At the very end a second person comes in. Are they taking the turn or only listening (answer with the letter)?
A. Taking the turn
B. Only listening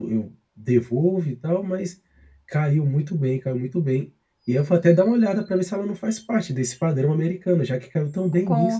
A